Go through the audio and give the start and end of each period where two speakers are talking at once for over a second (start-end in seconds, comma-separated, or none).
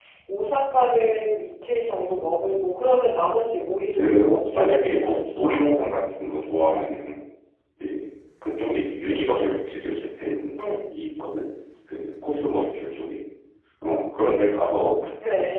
4.0-5.6